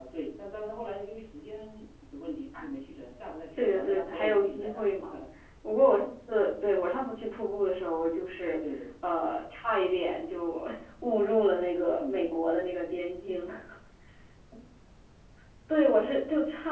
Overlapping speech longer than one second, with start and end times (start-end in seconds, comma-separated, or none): 3.6-4.9